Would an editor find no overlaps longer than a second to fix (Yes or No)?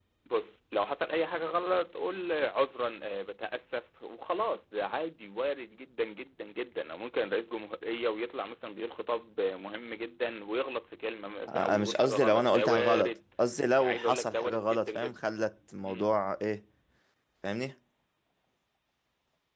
No